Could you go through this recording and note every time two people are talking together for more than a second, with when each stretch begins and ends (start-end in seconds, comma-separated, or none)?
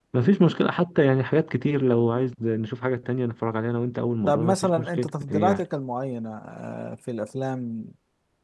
4.3-5.6